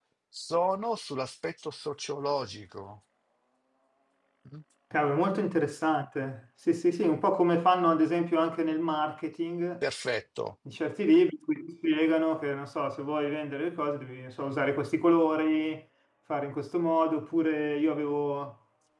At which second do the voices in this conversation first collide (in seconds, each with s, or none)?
none